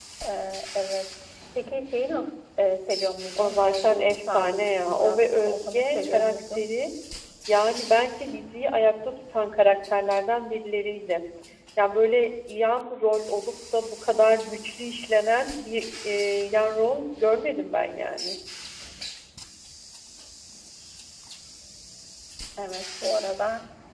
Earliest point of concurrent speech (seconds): 3.4 s

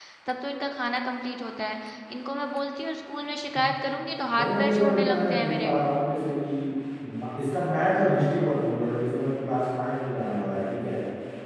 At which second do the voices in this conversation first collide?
4.3 s

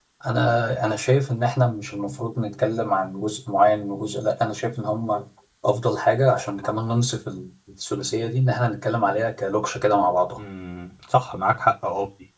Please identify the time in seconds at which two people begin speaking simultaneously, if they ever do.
none

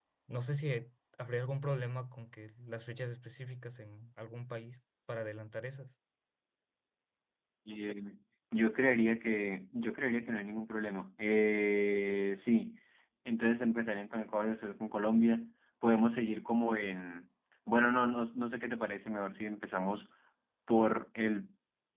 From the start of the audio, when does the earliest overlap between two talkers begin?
none

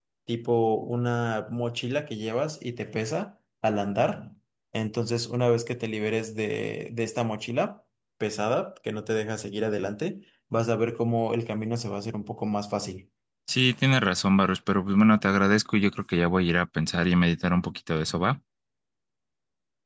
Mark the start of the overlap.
none

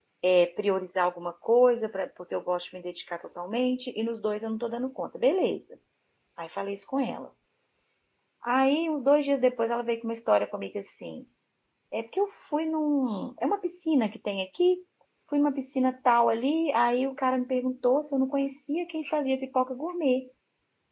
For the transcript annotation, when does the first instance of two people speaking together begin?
none

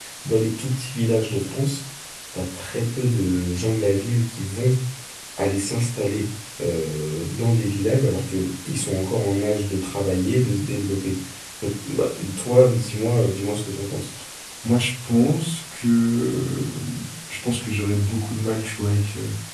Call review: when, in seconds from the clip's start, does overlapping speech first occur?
none

